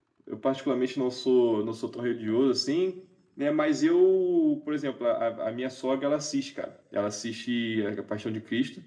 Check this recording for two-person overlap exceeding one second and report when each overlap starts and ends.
none

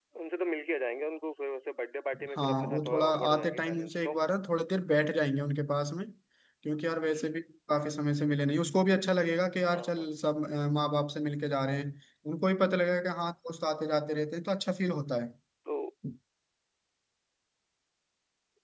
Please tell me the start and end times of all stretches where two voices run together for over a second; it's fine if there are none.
2.4-4.1

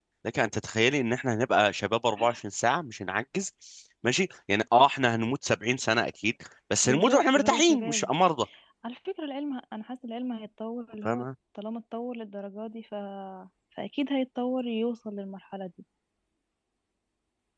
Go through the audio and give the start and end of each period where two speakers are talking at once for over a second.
6.8-8.1

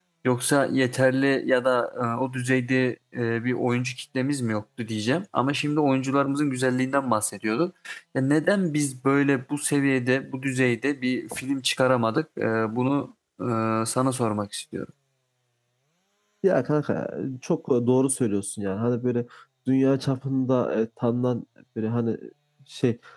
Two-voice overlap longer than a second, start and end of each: none

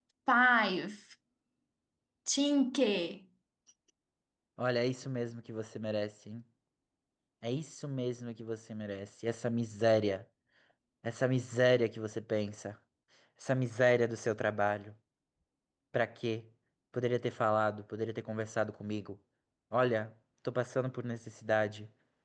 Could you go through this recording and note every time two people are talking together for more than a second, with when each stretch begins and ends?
none

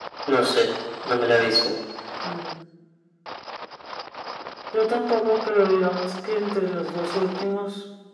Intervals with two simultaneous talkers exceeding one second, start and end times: none

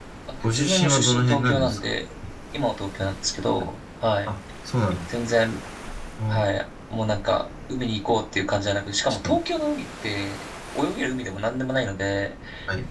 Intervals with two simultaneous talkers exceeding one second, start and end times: 0.5-1.9

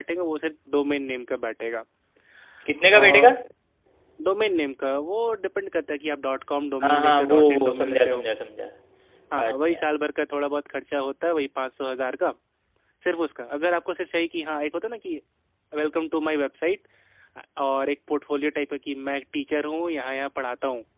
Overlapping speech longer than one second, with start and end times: 6.8-8.2

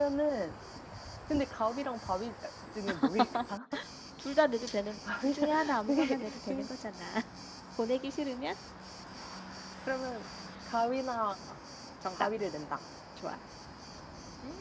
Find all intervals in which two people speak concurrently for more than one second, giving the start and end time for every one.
5.2-6.7

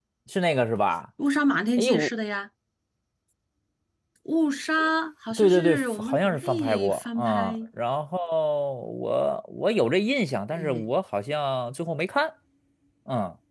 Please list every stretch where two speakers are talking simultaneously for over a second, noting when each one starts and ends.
5.3-7.6

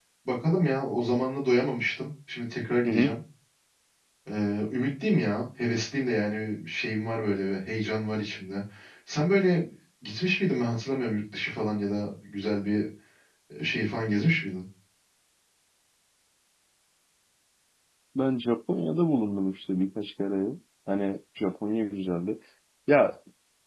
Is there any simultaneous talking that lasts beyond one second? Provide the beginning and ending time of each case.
none

